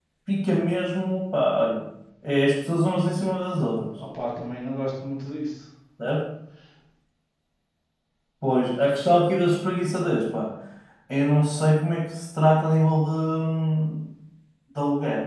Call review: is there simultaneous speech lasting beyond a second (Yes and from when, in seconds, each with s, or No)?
No